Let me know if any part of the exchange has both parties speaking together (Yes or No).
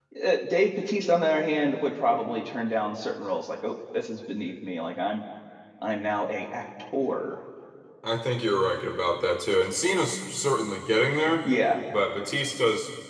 No